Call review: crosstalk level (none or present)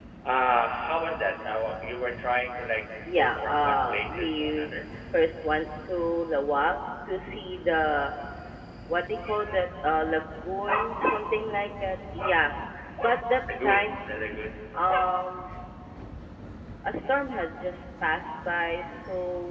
present